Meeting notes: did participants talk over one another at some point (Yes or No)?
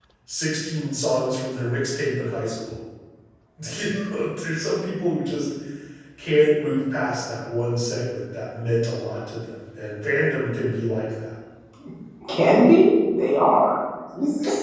No